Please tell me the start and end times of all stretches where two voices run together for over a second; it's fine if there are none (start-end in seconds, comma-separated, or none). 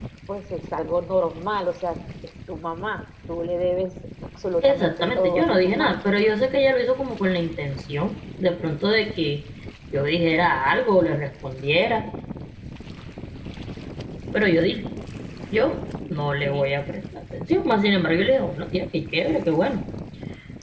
4.6-5.9